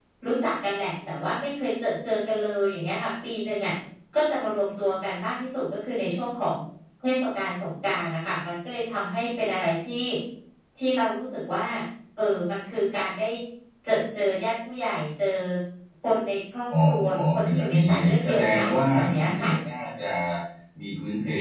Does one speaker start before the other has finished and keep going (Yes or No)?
Yes